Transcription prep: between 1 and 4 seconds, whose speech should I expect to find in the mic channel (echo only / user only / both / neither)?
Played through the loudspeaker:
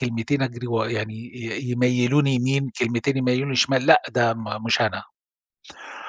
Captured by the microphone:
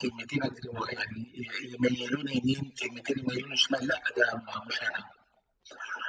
echo only